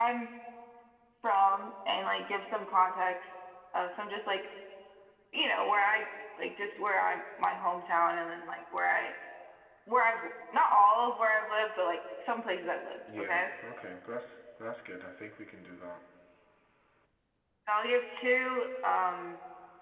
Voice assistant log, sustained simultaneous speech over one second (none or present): none